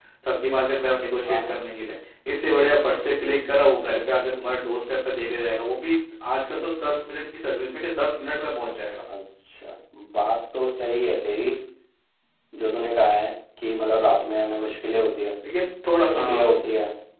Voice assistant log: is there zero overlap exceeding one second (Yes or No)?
Yes